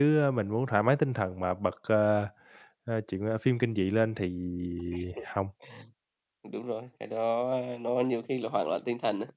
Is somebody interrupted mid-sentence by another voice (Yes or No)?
No